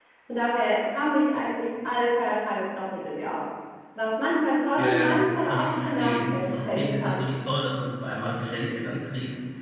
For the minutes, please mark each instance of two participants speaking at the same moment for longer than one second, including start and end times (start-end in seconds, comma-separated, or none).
4.8-7.3